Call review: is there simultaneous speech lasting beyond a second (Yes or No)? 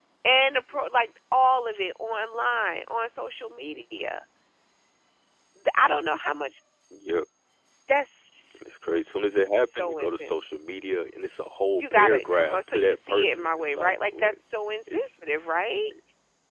Yes